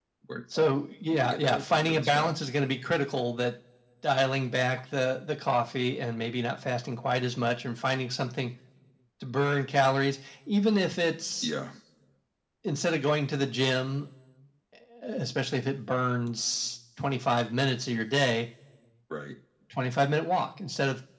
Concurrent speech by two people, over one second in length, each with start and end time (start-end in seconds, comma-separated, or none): 1.1-2.3